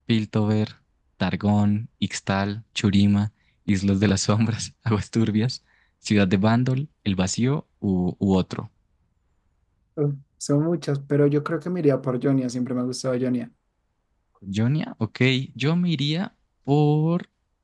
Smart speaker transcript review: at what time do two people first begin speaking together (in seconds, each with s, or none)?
none